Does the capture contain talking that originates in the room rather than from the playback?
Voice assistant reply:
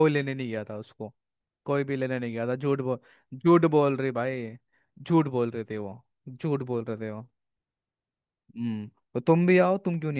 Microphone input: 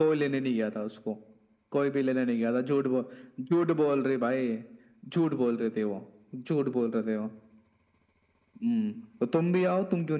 No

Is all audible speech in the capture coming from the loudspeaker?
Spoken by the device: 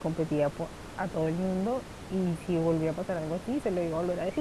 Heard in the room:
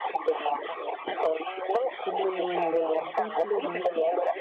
No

